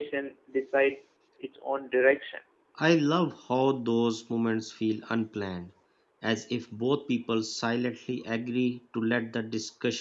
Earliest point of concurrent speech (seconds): none

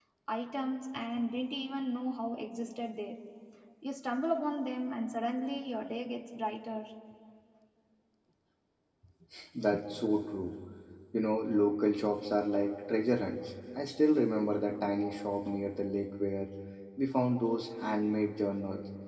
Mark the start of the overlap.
none

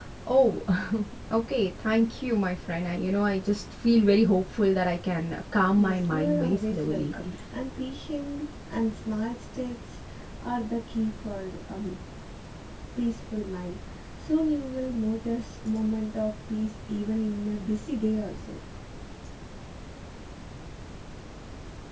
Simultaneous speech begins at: 5.7 s

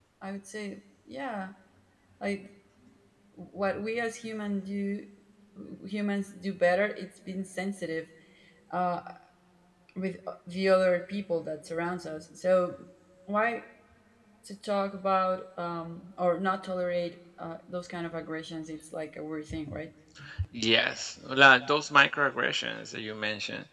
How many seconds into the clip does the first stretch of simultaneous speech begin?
none

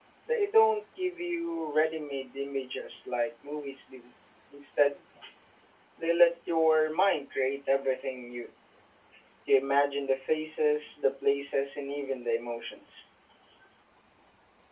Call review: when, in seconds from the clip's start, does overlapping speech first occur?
none

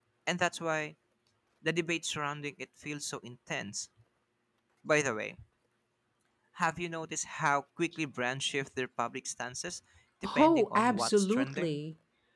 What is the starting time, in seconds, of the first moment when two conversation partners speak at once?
10.4 s

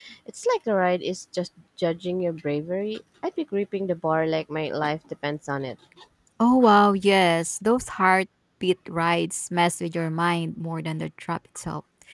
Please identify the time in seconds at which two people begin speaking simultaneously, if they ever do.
none

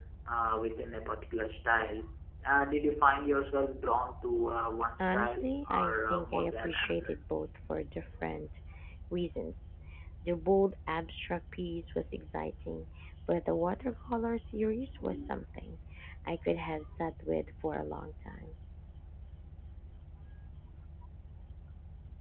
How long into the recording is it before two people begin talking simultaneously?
5.0 s

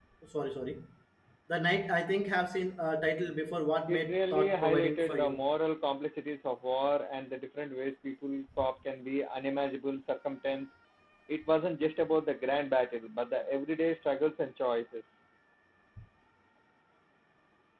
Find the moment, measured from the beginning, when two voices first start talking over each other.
3.9 s

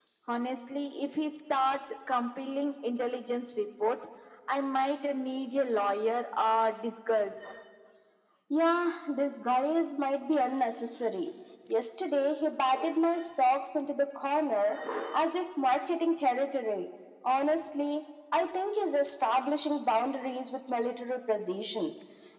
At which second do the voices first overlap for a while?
none

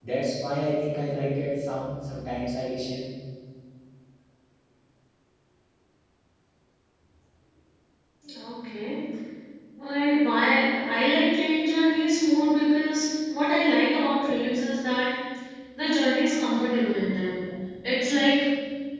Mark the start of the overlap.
none

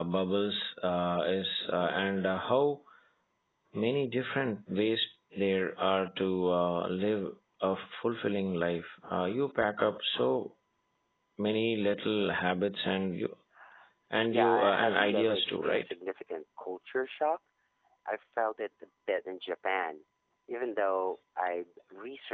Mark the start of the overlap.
14.3 s

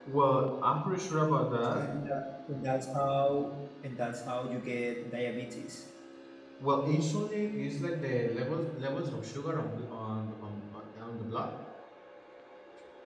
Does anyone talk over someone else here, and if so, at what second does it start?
none

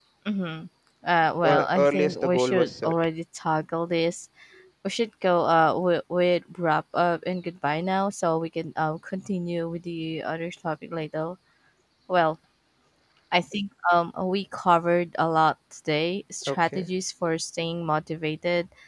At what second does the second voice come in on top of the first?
1.5 s

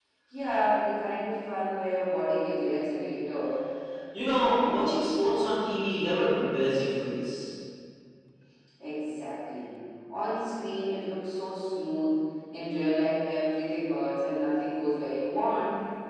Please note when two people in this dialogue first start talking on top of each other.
none

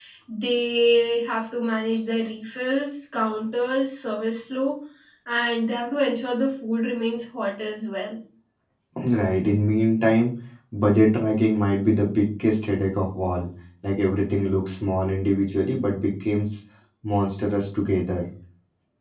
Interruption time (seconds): none

